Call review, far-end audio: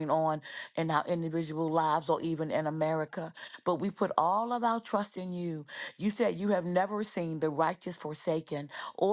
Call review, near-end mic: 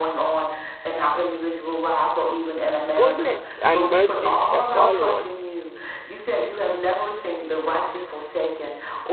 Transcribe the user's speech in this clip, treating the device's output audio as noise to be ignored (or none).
goodness and mercy shall follow us